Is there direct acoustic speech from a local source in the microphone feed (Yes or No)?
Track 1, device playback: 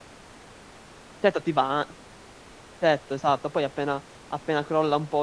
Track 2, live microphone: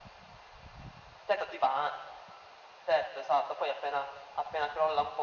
No